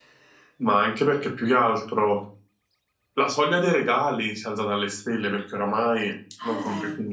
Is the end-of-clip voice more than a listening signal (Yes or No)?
No